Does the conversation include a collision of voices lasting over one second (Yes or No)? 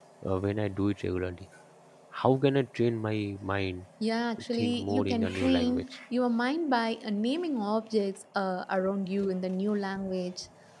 Yes